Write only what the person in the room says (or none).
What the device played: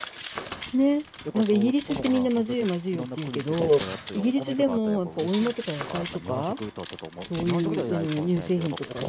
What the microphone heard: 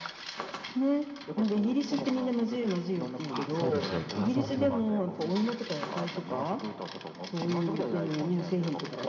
あ、そうですよね。あ、そうだ、そうだ。